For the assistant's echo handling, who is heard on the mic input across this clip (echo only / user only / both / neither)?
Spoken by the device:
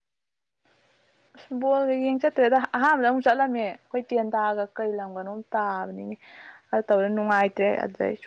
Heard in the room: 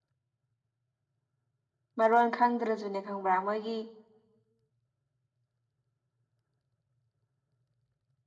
user only